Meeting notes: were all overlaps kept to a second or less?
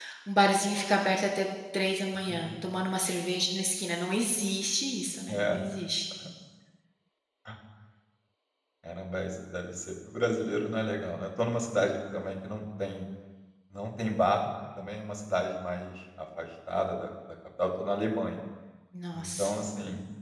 Yes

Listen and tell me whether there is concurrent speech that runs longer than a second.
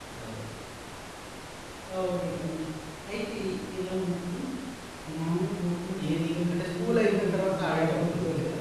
Yes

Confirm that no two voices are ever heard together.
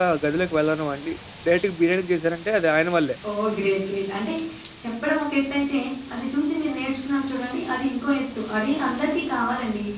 Yes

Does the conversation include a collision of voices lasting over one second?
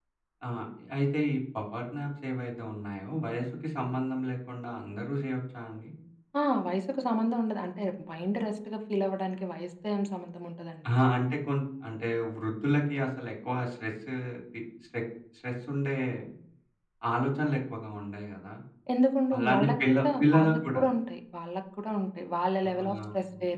Yes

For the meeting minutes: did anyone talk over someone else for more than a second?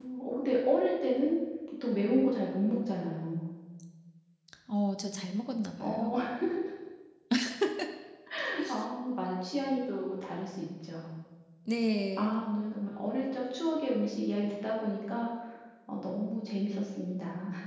No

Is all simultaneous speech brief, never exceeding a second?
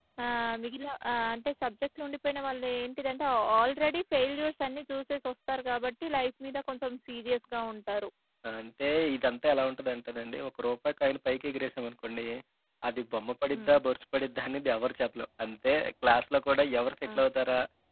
Yes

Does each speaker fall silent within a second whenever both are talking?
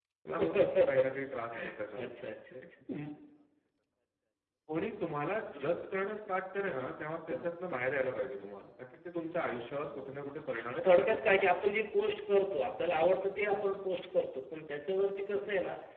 No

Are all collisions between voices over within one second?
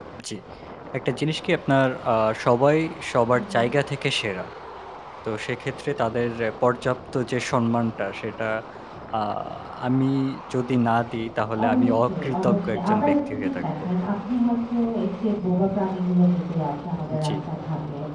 No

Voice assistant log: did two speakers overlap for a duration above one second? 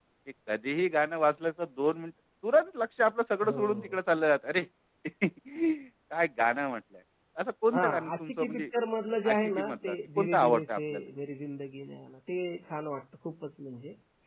Yes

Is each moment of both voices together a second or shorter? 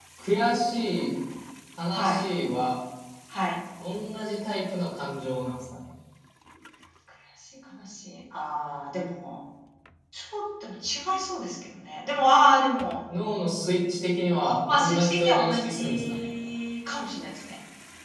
No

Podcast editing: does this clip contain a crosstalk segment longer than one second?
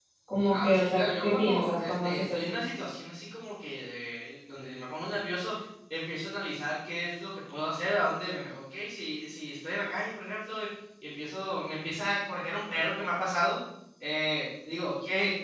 Yes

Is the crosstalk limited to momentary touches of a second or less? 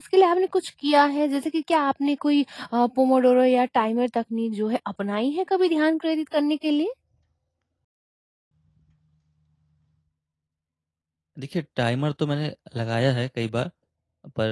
Yes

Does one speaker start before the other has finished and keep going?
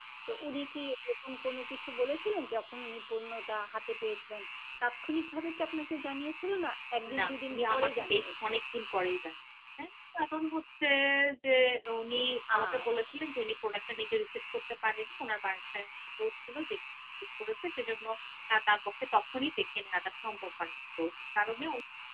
Yes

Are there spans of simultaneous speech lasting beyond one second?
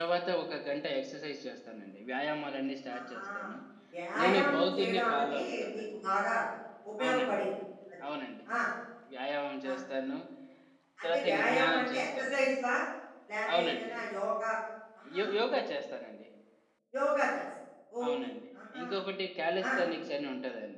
Yes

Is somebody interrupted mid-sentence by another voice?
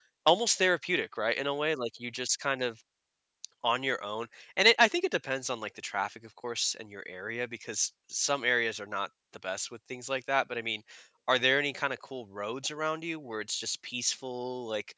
No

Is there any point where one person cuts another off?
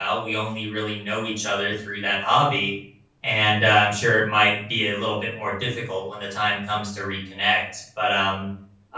No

